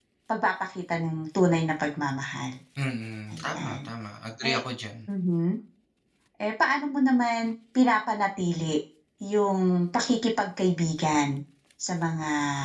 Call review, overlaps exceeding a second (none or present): none